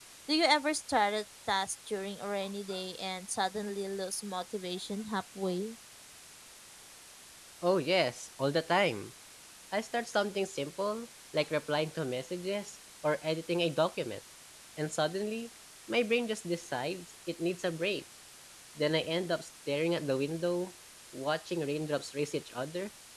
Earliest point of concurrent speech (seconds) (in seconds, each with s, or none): none